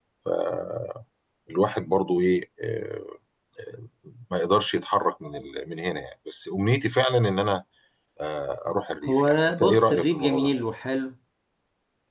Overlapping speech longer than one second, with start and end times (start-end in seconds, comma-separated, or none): 9.1-10.5